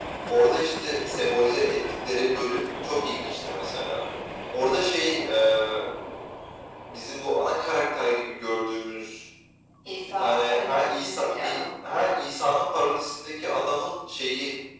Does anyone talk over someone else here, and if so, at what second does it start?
10.2 s

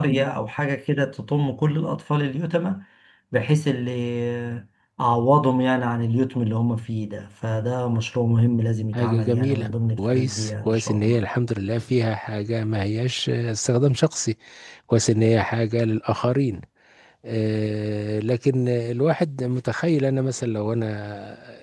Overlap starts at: 8.9 s

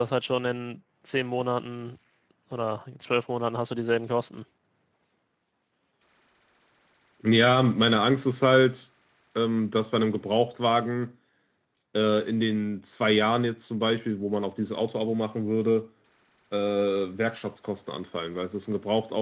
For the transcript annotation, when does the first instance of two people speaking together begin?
none

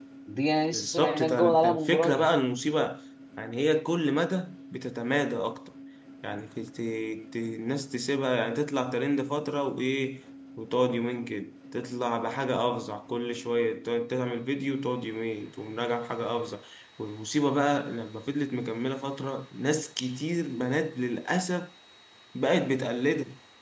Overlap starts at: 0.7 s

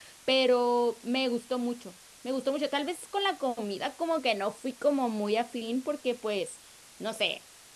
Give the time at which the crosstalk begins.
none

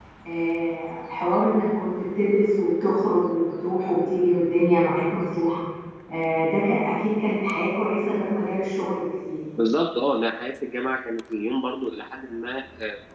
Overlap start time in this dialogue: none

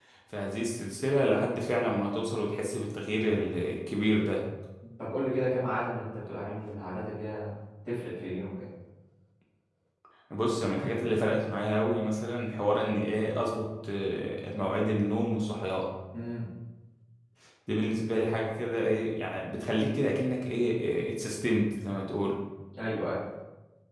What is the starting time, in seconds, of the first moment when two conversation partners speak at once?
none

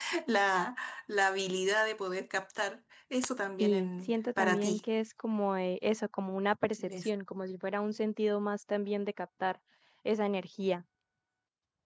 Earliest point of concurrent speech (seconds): 3.6 s

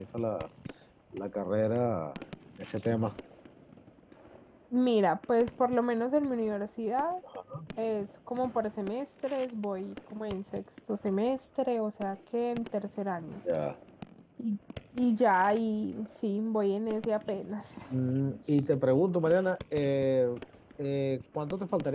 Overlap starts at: none

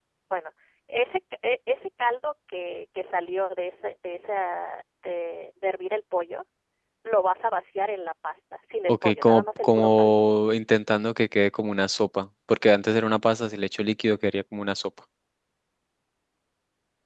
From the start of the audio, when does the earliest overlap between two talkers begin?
8.9 s

